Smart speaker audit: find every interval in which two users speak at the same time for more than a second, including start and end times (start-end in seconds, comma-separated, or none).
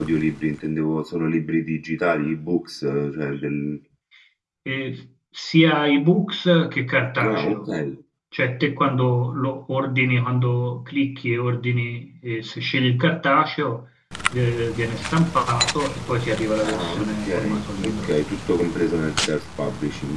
16.6-18.1